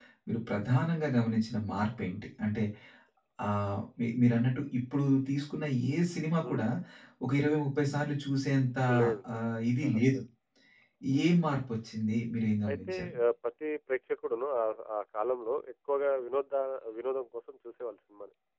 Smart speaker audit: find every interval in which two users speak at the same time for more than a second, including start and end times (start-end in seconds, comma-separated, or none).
none